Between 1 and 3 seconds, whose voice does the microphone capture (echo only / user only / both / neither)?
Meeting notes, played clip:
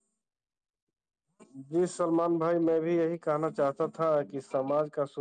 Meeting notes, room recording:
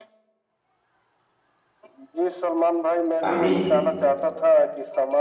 echo only